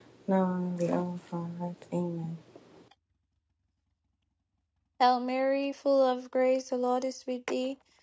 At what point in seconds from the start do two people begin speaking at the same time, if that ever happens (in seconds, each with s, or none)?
none